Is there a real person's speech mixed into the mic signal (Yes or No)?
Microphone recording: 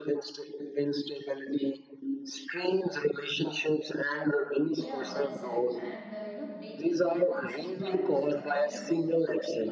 Yes